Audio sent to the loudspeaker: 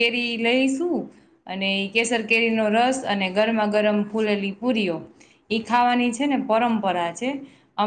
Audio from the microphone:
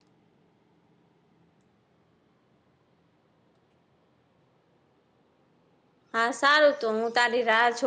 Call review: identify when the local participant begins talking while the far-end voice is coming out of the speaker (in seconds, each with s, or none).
6.1 s